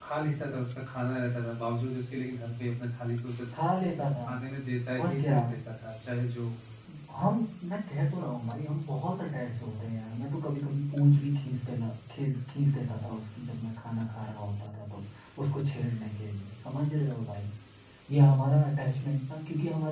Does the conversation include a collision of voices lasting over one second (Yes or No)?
No